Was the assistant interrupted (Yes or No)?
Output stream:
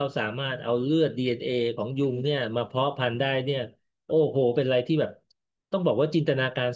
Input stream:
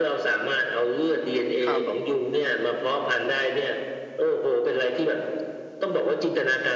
Yes